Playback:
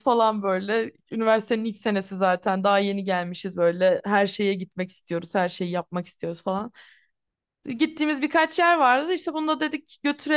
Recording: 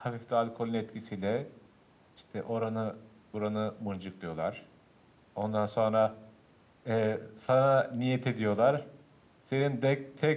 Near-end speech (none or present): present